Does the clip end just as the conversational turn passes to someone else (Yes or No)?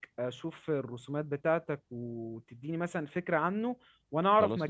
No